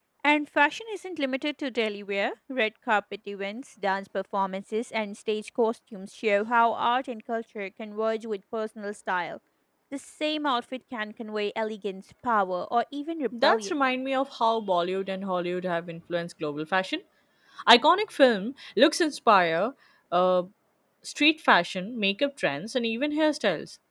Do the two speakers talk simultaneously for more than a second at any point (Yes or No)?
No